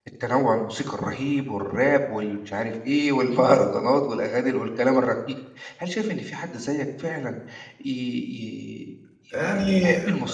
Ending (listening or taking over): listening